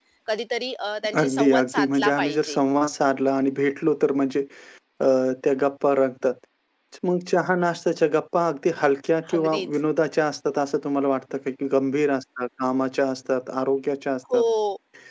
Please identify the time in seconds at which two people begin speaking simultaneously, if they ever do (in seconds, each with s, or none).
1.2 s